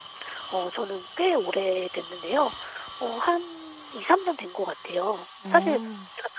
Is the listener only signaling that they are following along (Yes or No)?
Yes